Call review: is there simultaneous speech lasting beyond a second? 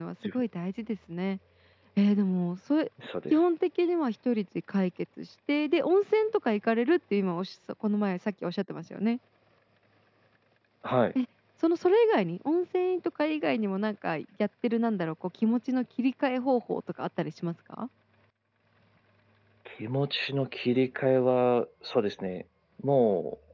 No

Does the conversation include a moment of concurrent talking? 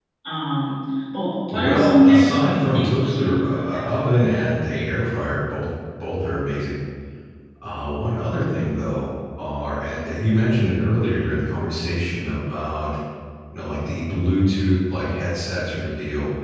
Yes, from 1.5 s

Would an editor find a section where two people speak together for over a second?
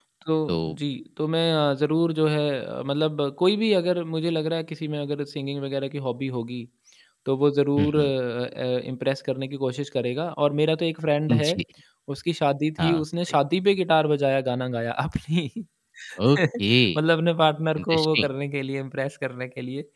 No

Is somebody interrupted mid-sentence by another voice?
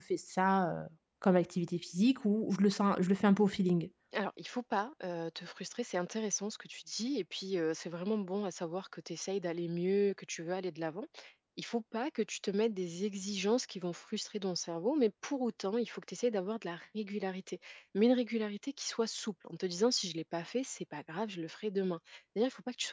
No

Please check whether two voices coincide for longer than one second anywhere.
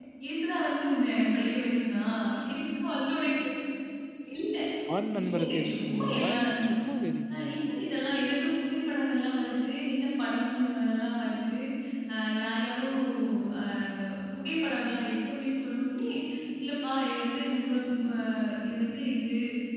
Yes, from 5.2 s

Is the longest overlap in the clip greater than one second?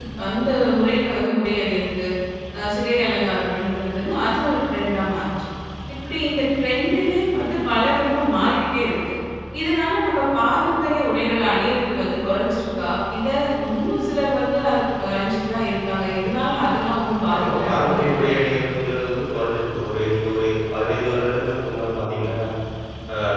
Yes, from 17.3 s

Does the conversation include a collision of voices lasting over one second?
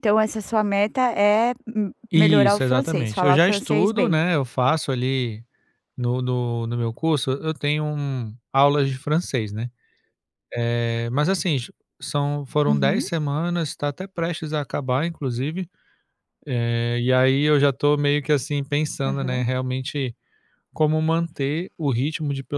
Yes, from 2.1 s

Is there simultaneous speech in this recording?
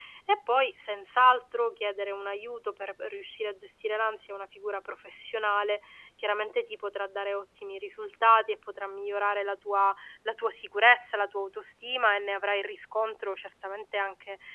No

